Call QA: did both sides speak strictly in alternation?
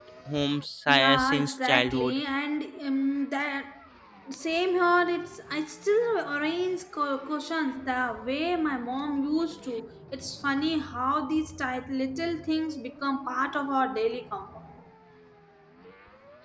No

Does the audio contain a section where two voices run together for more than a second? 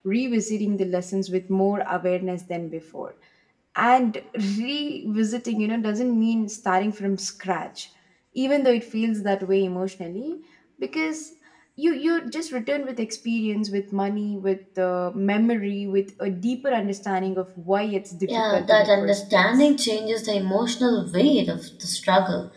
Yes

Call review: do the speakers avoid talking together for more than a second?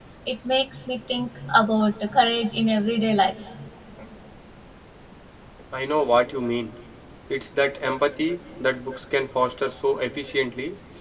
Yes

